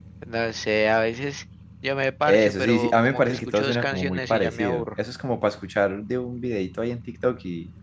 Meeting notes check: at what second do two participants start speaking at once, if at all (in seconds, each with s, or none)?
2.3 s